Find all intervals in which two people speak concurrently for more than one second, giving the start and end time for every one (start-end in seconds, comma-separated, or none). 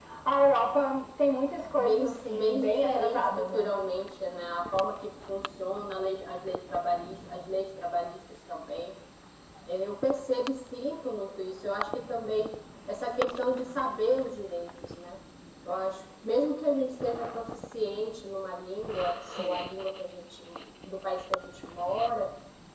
1.8-3.7